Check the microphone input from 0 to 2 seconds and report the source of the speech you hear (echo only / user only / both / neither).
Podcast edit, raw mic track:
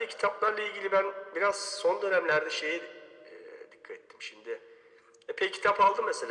echo only